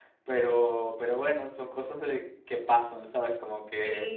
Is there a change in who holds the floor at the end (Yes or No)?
No